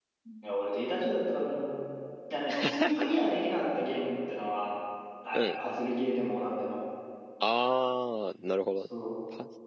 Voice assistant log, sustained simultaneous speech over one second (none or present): none